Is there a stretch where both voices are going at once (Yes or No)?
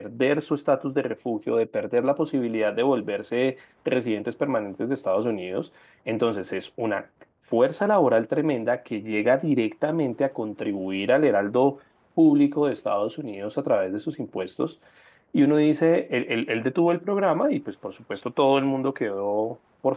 No